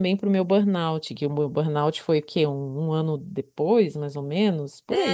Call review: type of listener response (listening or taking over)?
taking over